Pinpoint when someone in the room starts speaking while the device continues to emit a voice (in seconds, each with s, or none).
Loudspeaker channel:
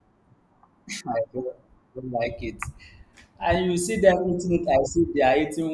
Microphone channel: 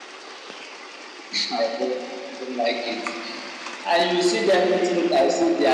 none